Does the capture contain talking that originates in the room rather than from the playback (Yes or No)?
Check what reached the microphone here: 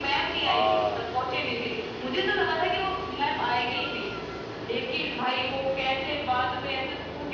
Yes